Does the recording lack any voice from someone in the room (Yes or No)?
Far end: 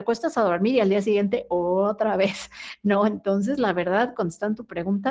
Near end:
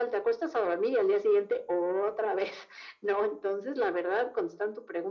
Yes